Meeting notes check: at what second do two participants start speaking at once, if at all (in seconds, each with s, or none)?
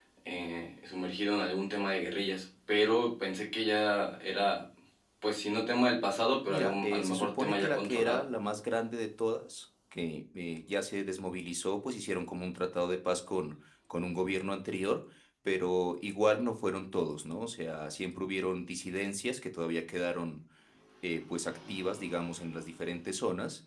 6.5 s